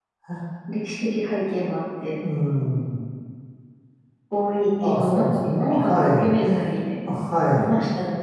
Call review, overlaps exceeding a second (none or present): present